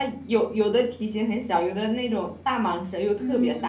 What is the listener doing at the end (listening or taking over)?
taking over